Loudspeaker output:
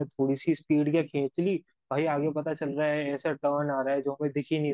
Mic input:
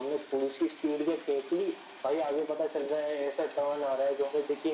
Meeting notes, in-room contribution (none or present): none